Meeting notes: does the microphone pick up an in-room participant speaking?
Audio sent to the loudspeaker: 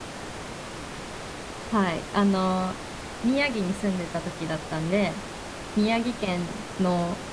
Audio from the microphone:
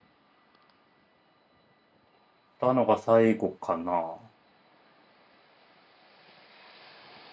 Yes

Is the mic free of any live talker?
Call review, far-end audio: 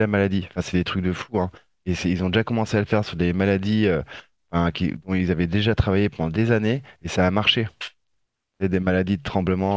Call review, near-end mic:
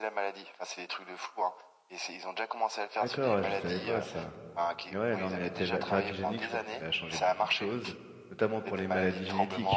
No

